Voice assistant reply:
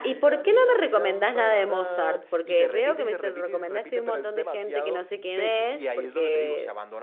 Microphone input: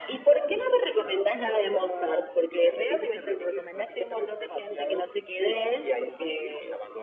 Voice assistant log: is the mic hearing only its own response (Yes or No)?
Yes